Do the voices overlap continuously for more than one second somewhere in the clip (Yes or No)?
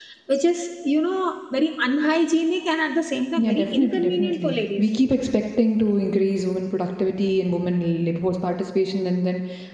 Yes